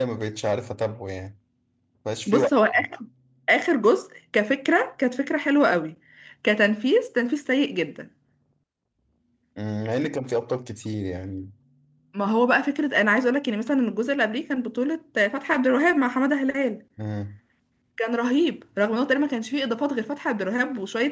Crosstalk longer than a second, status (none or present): none